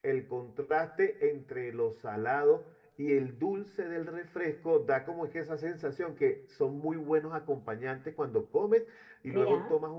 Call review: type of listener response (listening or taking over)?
listening